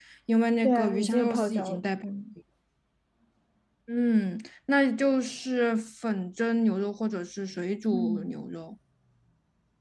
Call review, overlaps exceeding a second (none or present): present